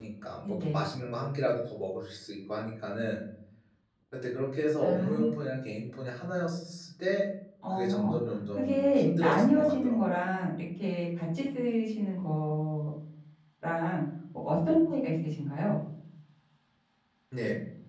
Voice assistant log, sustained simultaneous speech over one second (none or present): present